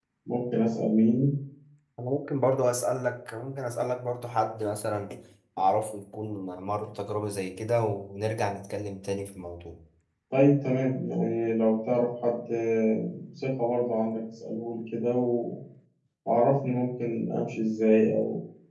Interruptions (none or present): none